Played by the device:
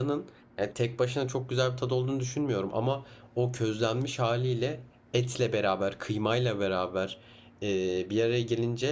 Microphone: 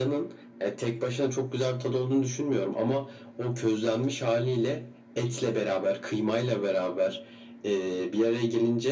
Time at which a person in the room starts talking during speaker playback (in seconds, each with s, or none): none